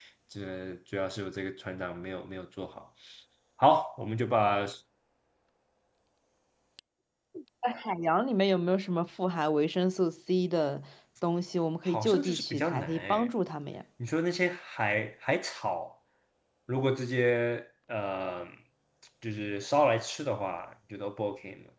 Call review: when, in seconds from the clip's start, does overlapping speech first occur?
11.8 s

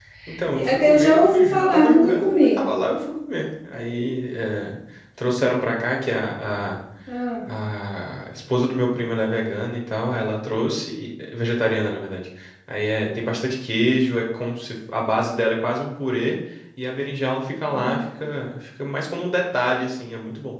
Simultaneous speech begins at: 0.6 s

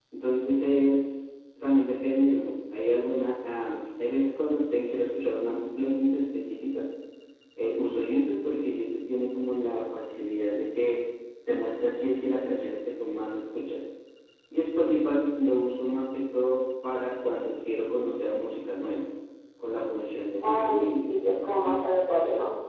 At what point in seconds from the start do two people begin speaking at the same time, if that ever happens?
20.4 s

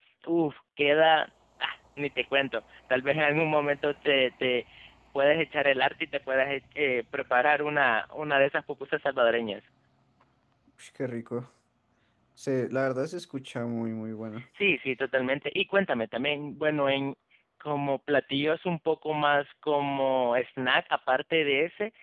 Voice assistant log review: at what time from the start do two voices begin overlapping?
none

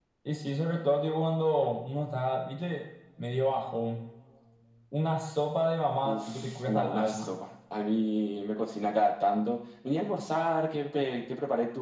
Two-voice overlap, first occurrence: 6.0 s

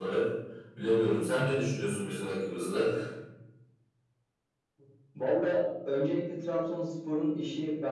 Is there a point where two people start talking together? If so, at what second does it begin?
none

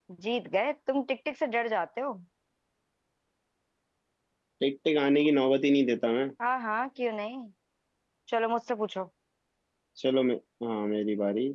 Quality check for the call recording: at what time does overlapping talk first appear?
none

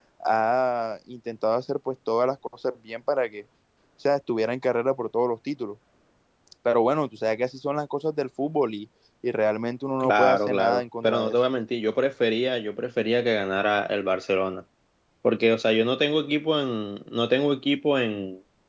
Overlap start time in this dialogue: 10.0 s

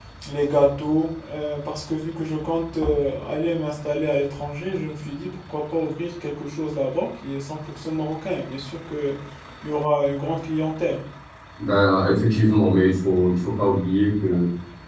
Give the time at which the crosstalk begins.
none

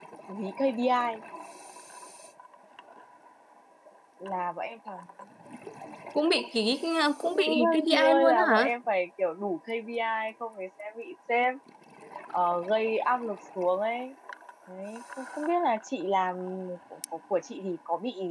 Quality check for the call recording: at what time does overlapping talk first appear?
7.2 s

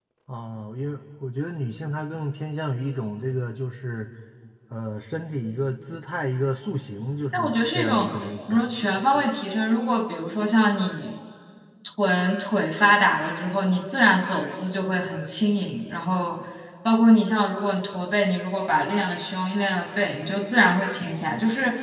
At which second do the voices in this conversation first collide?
7.3 s

